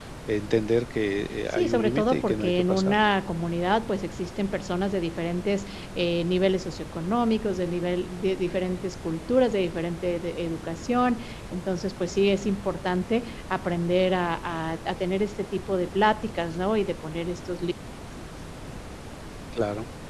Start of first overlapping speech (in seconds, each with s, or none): 1.5 s